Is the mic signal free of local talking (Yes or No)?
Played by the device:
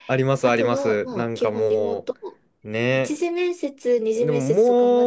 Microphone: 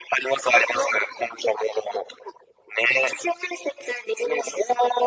Yes